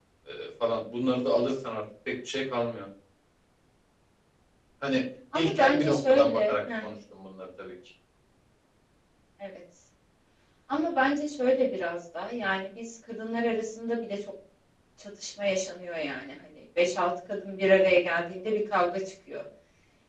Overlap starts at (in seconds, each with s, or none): 5.3 s